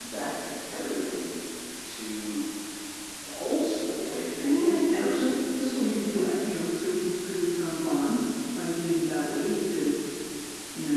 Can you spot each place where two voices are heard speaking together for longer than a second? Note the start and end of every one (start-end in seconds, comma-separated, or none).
4.4-6.8